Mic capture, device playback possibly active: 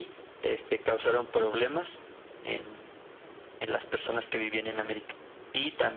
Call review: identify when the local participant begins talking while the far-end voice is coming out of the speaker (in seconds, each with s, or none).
none